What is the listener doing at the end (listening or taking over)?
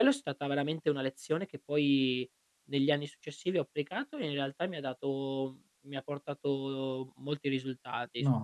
taking over